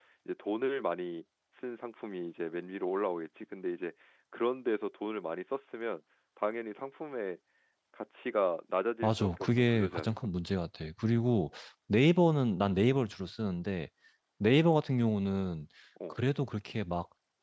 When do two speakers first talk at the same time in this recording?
9.0 s

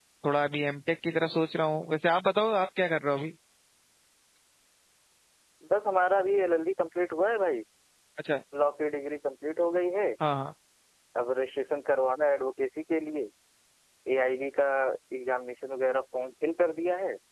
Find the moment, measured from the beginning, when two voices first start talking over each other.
none

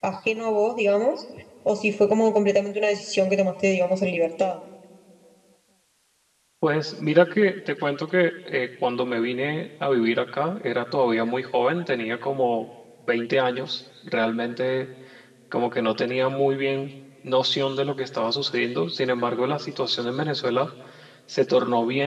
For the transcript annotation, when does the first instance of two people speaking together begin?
none

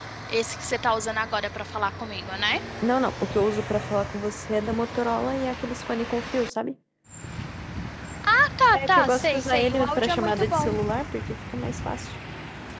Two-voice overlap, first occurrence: 8.7 s

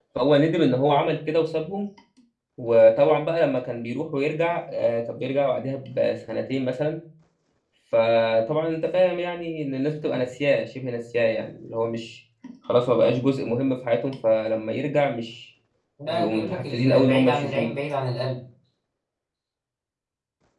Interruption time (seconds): 16.1 s

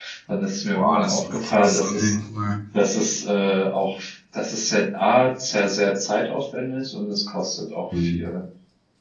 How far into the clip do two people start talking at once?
0.7 s

